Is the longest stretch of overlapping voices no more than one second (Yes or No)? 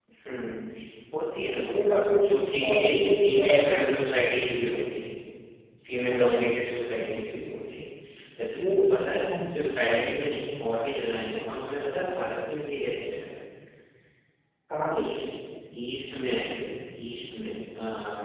No